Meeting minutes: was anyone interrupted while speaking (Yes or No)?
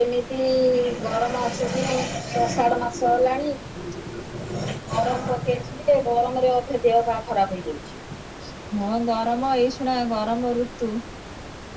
No